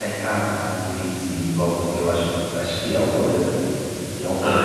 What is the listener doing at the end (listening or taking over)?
taking over